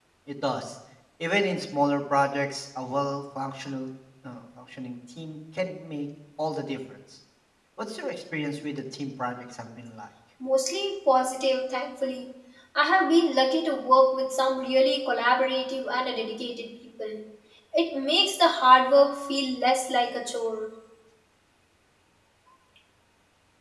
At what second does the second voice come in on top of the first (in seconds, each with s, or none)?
none